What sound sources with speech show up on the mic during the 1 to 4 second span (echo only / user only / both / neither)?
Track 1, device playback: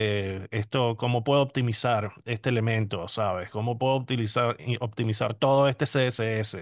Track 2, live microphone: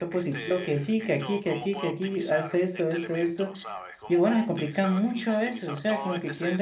both